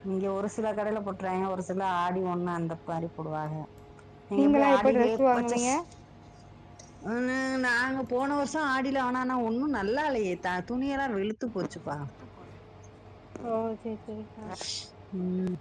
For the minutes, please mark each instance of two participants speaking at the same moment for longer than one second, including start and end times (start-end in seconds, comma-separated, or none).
4.4-5.7